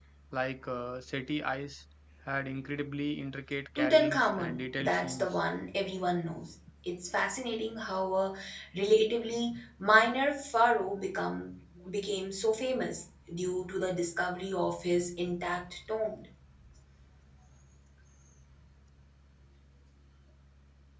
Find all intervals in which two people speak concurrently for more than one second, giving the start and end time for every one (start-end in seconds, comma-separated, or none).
3.8-5.4